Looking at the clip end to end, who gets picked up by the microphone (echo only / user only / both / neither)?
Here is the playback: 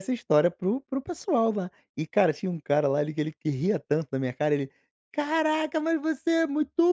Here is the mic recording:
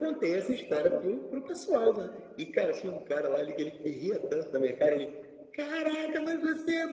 echo only